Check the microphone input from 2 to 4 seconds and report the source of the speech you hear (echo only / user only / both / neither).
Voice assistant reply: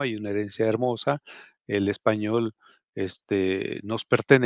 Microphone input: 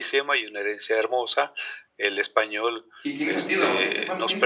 both